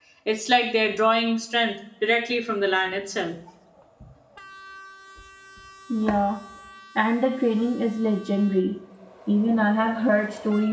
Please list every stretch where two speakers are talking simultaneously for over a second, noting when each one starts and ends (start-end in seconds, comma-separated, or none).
none